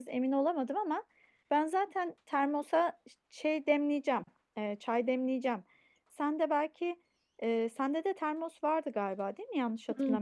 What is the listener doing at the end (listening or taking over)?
taking over